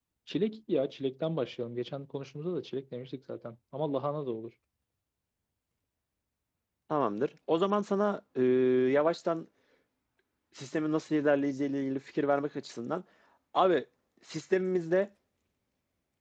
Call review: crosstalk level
none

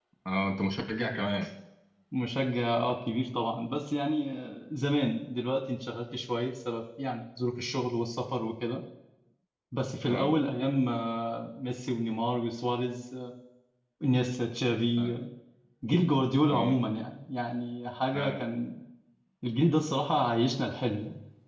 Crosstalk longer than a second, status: none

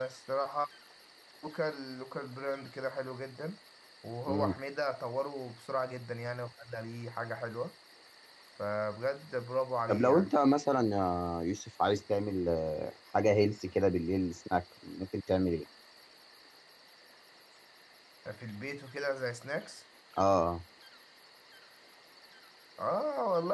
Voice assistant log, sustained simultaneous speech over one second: none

